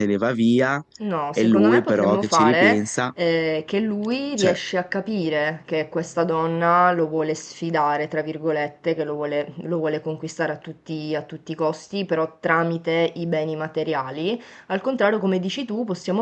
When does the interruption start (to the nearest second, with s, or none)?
1 s